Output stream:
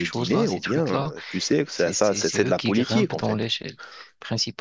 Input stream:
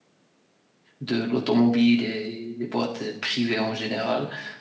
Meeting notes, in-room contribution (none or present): present